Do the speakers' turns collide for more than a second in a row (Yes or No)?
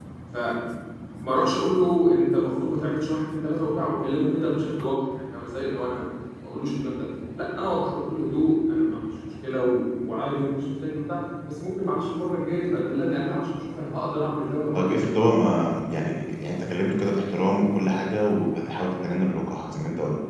No